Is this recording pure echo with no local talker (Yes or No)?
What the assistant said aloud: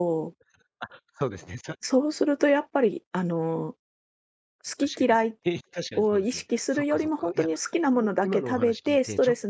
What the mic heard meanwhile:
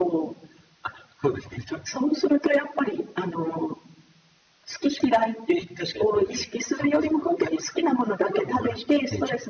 Yes